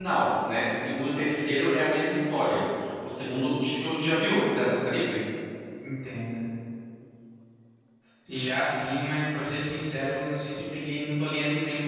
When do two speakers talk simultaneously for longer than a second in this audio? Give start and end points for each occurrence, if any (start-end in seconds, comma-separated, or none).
none